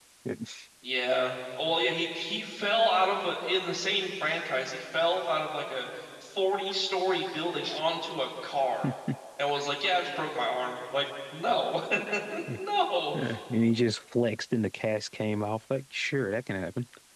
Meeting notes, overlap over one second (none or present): none